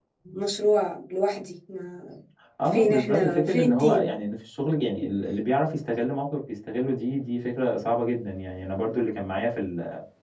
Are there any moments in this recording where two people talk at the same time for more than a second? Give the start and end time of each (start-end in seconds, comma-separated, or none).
2.6-4.1